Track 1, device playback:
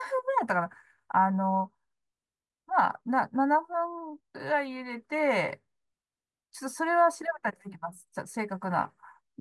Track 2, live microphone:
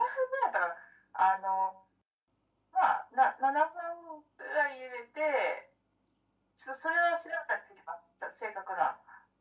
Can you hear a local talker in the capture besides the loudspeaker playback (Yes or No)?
No